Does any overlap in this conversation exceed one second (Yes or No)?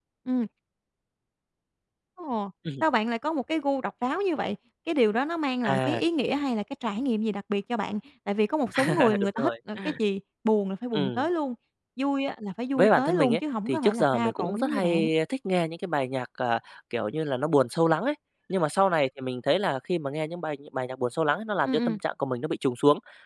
Yes